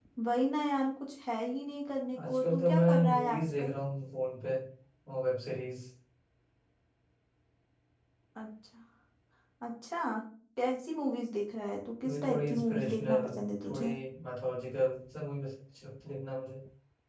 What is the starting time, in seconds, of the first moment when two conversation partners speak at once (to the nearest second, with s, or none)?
2 s